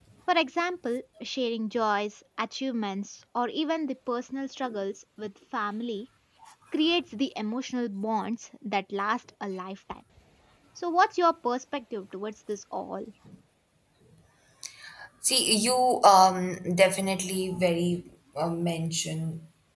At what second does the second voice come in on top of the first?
none

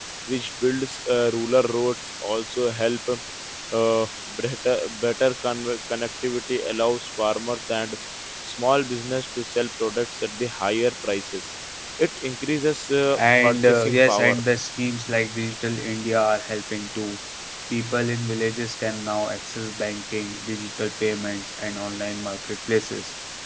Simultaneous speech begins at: 13 s

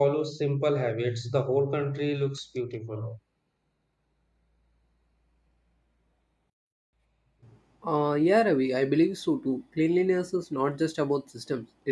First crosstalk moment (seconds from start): none

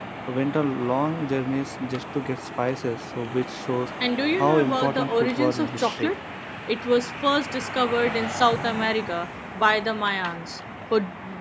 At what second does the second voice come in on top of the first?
4 s

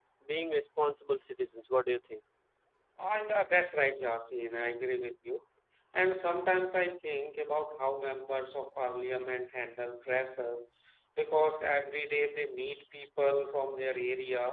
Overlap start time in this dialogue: none

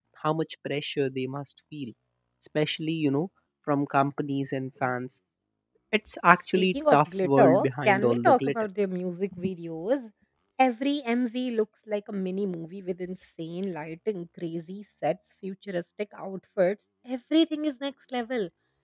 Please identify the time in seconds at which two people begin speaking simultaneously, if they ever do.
7 s

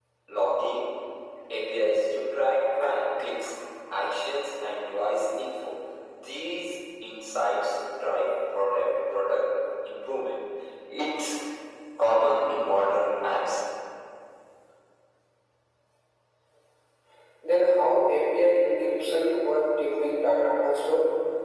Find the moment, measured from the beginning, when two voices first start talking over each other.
none

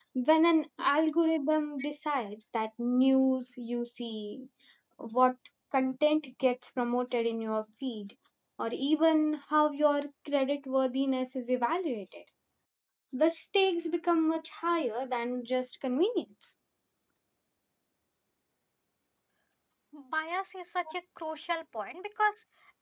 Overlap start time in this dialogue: none

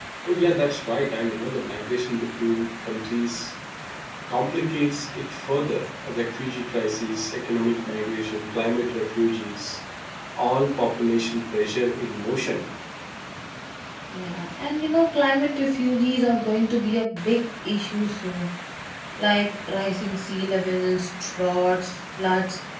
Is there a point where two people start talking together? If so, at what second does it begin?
none

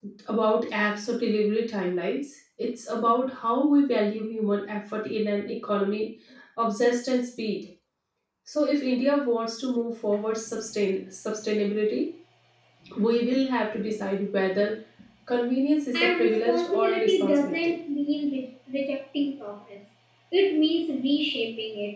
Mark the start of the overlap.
16 s

